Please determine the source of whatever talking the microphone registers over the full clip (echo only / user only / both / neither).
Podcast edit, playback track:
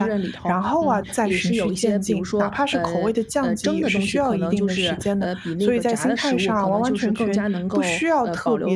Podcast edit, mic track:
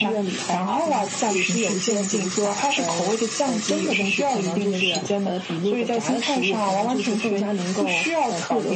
echo only